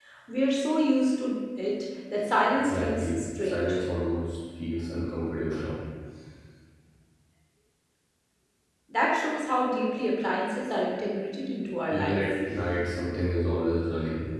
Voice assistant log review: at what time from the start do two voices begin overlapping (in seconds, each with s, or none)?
2.6 s